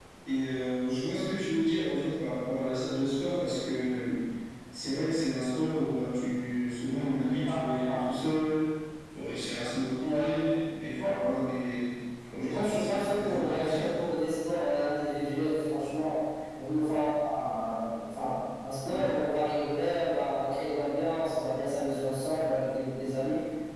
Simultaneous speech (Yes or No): Yes